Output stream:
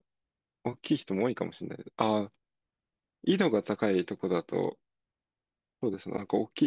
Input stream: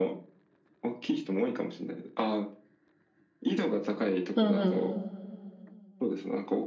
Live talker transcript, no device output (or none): うんうん。